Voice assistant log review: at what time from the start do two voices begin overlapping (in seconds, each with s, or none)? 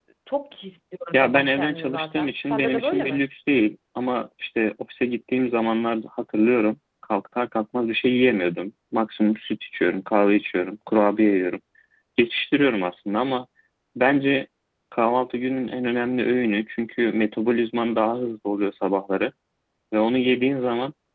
1.1 s